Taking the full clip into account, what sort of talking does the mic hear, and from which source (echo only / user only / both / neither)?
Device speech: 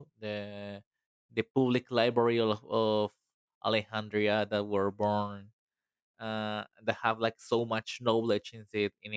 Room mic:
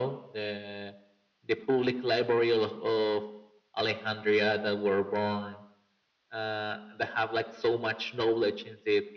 echo only